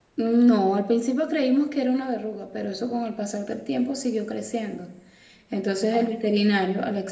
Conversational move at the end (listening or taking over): listening